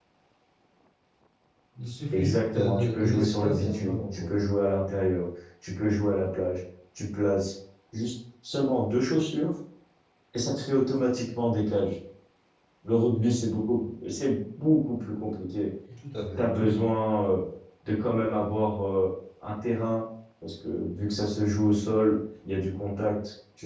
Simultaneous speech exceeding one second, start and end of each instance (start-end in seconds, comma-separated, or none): 2.1-4.3